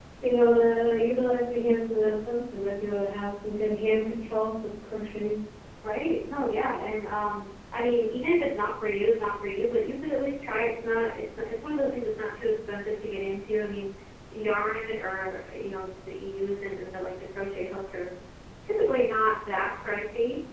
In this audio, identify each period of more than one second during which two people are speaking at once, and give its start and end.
none

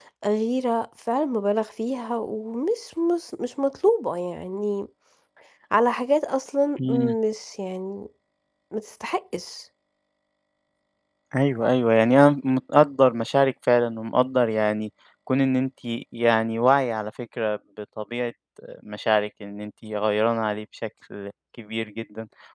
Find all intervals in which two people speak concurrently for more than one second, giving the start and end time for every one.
none

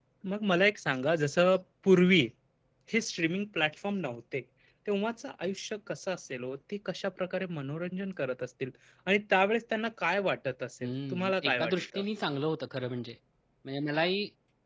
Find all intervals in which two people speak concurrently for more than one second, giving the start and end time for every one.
10.8-12.0

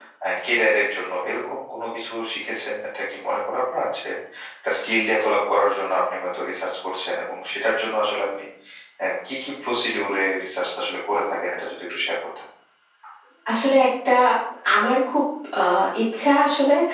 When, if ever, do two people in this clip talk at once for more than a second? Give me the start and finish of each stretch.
none

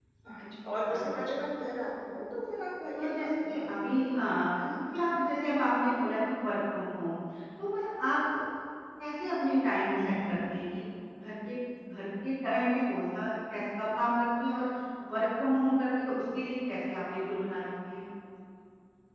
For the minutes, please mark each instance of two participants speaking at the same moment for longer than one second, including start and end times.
3.0-4.2

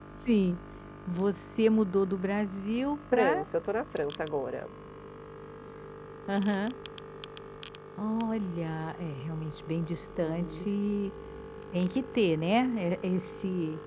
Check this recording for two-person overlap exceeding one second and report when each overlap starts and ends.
none

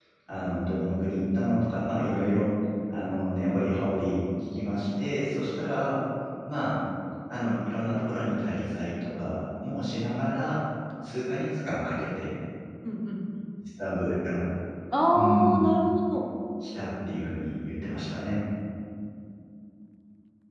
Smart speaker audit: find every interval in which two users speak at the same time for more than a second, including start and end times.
none

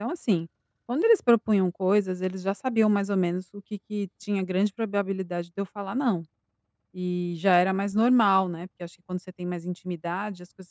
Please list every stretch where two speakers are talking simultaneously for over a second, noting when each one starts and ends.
none

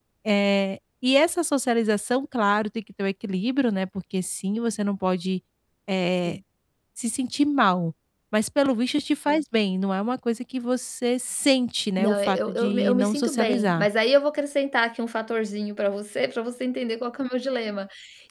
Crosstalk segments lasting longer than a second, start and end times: 12.0-13.9

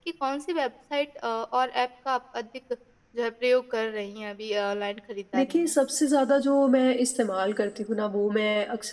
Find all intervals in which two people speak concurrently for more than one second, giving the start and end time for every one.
none

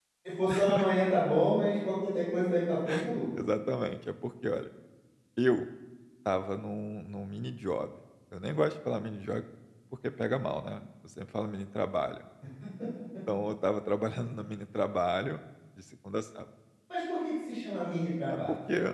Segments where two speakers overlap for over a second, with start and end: none

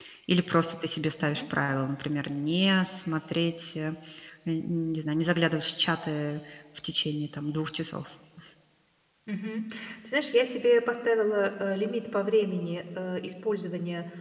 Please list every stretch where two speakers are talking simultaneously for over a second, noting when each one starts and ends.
none

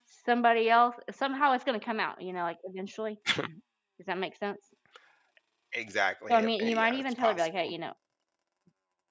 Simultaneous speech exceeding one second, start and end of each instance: 6.3-7.7

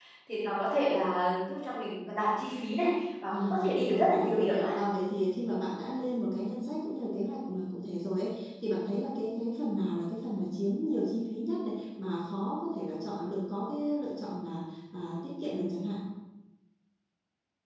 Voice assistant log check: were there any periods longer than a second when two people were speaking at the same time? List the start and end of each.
3.3-4.7

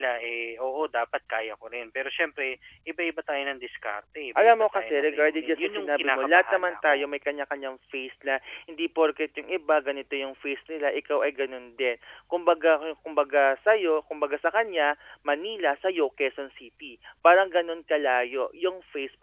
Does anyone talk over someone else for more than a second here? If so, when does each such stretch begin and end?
4.4-7.1

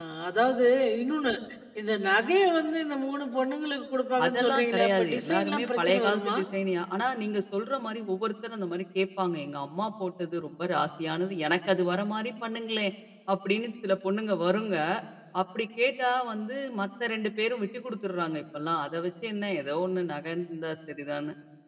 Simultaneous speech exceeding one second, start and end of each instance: 4.2-6.4

